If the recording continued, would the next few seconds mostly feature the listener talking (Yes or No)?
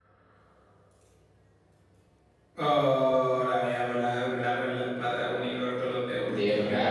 No